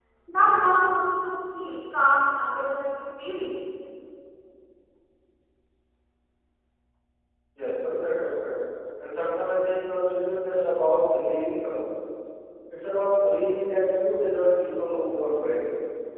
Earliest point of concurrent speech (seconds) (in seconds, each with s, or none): none